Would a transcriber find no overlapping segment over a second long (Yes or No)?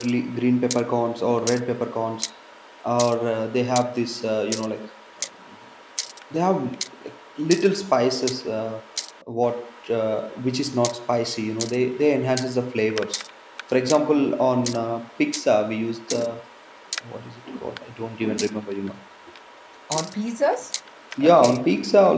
Yes